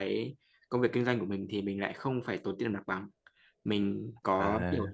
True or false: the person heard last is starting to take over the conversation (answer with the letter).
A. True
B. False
B